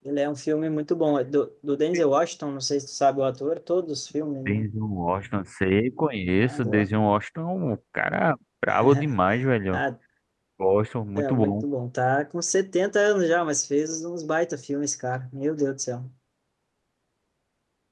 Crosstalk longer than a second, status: none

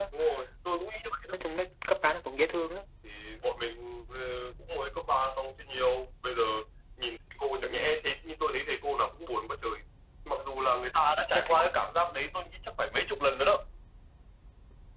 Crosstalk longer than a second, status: none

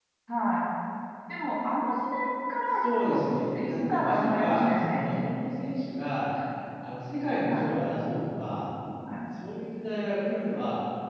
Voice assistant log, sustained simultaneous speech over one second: present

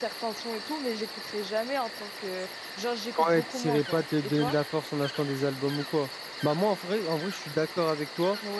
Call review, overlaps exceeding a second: present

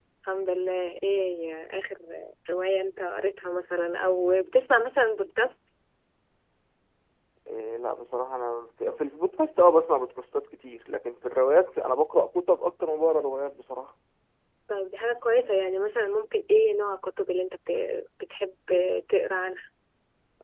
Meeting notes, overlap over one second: none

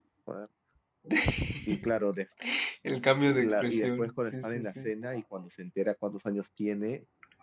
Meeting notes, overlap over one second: present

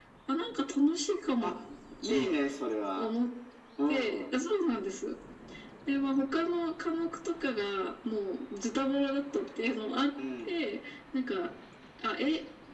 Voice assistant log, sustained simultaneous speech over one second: none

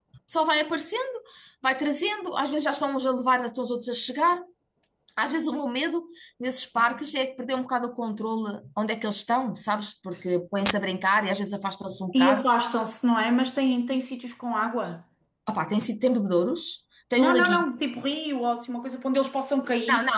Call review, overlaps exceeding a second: none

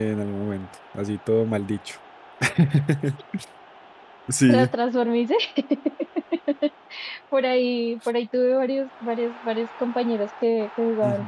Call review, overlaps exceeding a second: none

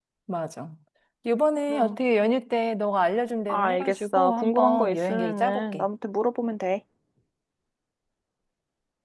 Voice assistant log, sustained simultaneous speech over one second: present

